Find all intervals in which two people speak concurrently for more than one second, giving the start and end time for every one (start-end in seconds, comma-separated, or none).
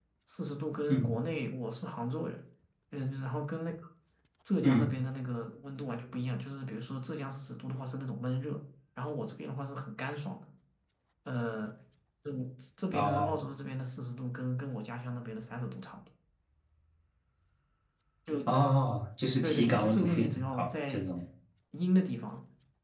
19.4-21.0